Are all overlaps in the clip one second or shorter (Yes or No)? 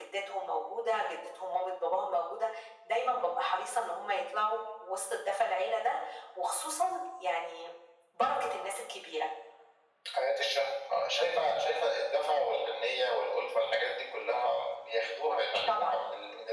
Yes